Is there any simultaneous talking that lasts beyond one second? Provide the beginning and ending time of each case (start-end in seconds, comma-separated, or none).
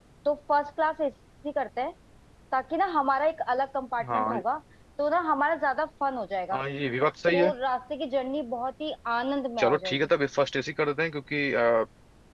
none